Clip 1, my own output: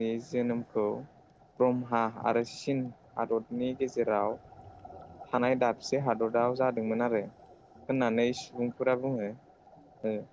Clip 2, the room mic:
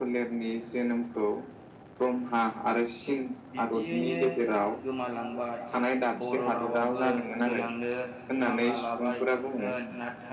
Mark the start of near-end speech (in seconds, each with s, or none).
3.6 s